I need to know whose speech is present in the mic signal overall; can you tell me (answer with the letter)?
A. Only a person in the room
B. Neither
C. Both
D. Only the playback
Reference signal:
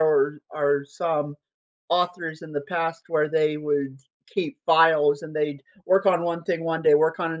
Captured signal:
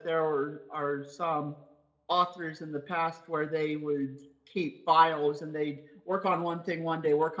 D